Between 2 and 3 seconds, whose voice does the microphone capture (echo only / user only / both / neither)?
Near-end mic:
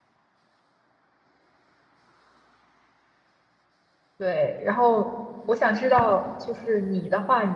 neither